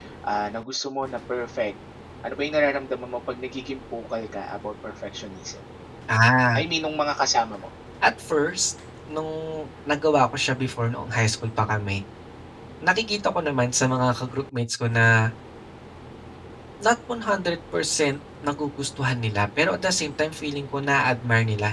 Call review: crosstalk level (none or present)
none